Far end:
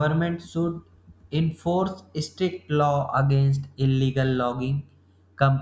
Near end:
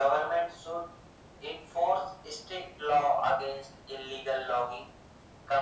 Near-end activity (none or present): none